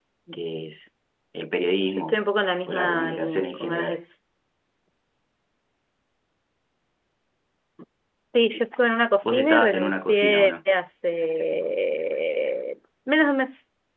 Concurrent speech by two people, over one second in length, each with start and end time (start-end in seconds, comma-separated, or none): 2.7-4.0, 9.2-10.5